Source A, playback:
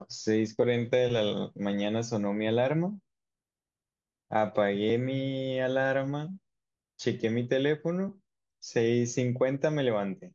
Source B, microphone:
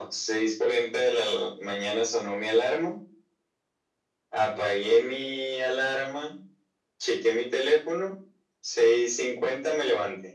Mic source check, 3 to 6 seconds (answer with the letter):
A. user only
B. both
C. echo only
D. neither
C